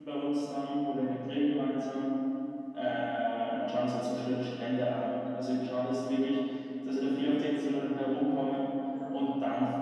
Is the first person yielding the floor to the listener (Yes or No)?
No